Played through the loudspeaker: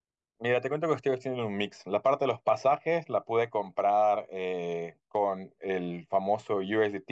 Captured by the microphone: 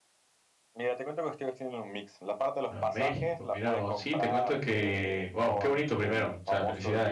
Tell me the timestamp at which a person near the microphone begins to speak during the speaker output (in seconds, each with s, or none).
2.7 s